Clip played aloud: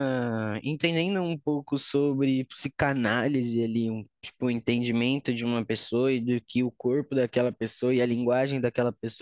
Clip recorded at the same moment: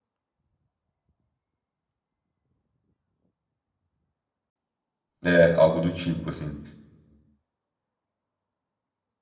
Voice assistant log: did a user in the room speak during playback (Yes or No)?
Yes